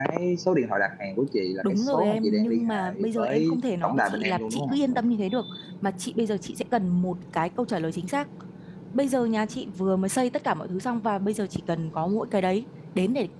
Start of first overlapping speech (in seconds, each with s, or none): 1.6 s